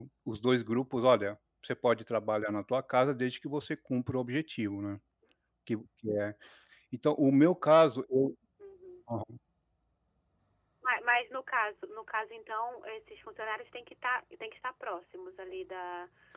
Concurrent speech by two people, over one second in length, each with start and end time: none

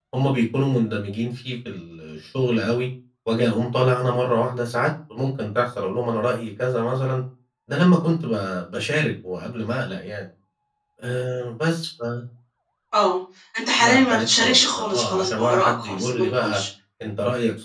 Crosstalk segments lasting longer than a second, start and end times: 13.8-16.6

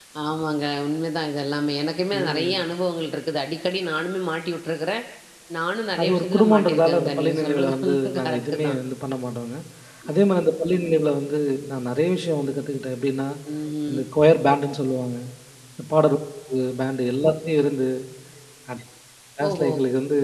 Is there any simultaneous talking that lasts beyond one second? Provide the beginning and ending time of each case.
6.0-8.8

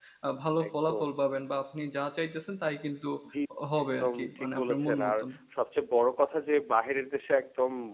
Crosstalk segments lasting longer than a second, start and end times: 3.8-5.1

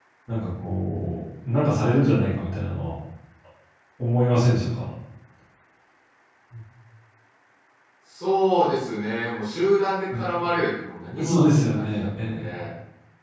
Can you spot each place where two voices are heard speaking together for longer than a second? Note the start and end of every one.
11.2-12.5

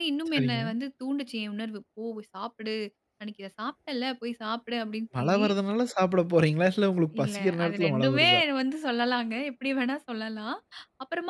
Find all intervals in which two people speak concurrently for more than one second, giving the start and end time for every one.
7.2-8.4

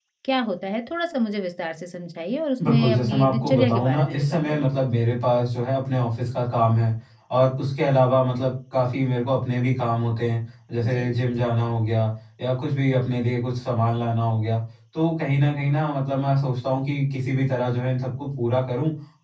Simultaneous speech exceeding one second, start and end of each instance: 2.6-4.8

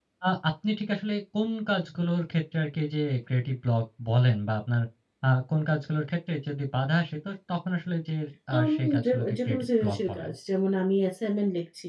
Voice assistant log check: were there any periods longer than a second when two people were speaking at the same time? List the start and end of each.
8.6-10.3

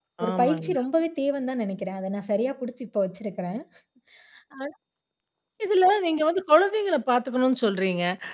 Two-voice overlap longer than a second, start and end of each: none

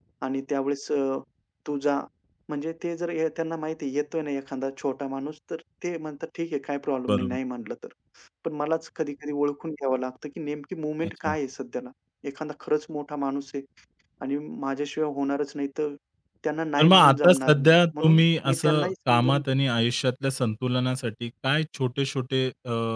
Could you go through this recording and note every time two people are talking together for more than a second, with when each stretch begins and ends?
16.8-19.4

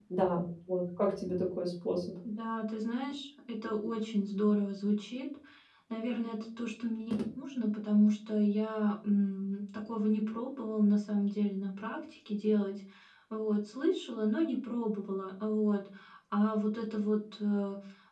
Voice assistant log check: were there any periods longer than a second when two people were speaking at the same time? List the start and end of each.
none

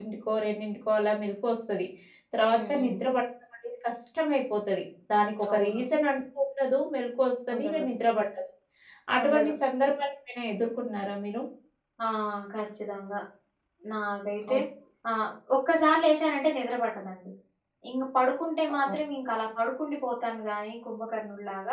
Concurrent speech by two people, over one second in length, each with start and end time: none

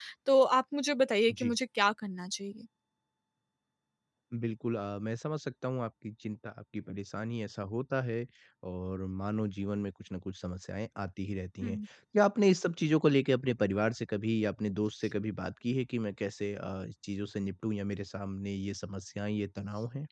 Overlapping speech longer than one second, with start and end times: none

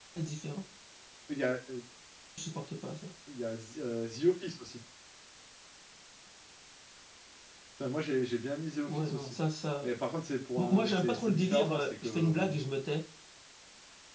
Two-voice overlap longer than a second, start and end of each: 10.6-12.5

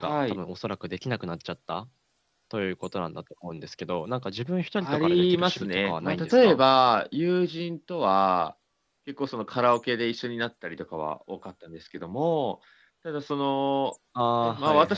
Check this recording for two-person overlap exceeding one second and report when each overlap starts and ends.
4.8-6.6

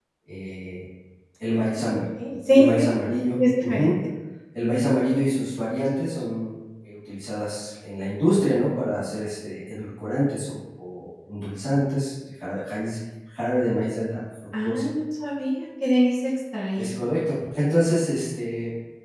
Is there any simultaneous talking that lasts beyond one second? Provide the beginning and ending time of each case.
none

